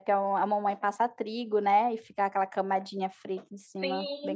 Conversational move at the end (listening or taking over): taking over